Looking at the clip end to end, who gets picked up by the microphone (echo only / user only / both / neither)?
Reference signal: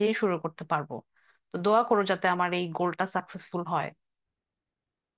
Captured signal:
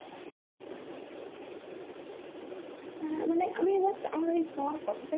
user only